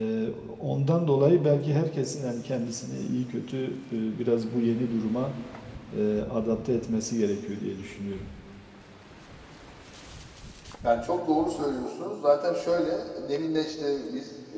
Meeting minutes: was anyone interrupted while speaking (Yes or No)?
No